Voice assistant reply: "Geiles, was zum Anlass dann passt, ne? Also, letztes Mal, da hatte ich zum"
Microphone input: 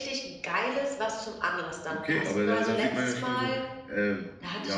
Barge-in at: 1.9 s

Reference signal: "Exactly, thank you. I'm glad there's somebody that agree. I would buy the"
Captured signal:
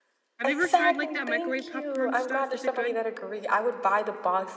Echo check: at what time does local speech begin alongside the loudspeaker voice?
0.4 s

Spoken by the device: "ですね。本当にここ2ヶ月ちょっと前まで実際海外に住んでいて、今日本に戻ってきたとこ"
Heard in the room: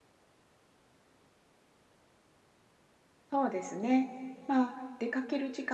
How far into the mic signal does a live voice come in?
3.3 s

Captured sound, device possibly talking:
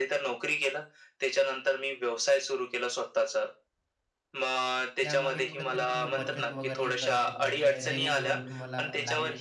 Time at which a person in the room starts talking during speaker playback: 5.0 s

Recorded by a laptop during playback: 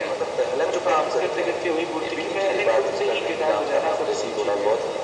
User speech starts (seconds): none

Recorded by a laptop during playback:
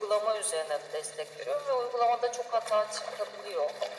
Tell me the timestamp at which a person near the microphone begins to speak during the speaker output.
none

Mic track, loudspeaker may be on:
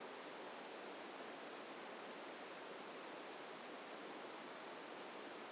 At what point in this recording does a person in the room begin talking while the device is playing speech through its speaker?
none

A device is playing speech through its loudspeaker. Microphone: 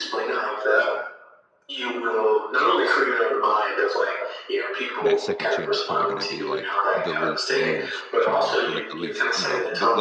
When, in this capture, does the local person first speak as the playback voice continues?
5.0 s

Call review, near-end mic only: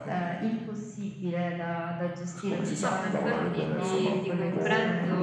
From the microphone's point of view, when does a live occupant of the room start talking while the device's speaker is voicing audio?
2.8 s

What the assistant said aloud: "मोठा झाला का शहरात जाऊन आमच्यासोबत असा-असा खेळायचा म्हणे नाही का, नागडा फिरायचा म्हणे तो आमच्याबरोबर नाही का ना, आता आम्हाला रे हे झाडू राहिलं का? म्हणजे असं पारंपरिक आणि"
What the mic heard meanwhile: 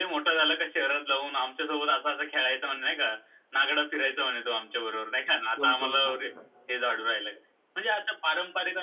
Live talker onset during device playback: 5.5 s

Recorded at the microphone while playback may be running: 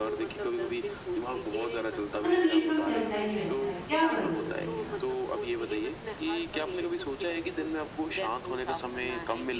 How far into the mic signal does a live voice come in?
2.2 s

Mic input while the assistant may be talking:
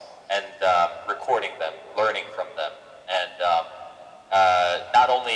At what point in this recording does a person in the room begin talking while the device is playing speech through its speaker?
none

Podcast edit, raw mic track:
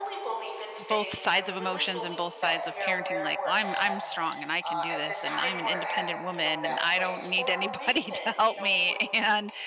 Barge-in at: 0.9 s

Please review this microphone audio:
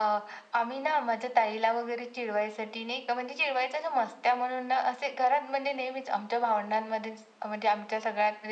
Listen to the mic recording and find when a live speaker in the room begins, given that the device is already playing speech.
none

